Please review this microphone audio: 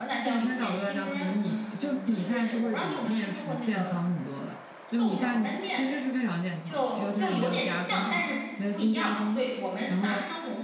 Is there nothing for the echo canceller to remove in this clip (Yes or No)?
No